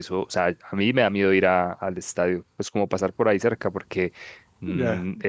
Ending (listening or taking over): listening